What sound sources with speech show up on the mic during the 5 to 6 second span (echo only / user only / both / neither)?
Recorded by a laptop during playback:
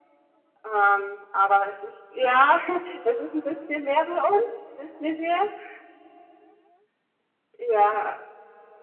echo only